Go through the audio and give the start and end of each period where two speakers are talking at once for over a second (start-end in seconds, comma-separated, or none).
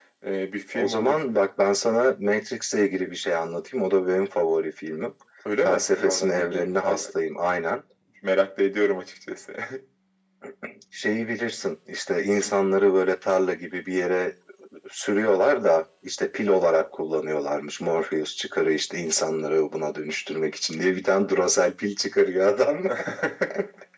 5.6-7.0